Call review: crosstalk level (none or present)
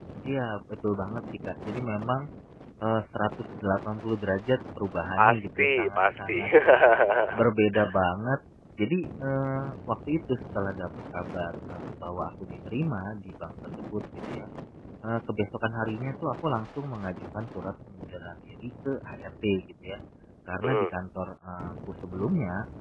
present